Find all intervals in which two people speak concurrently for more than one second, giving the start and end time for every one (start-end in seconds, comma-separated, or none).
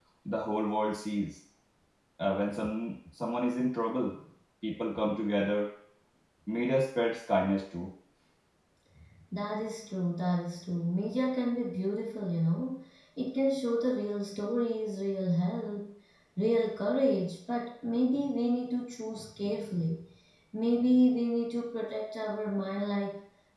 none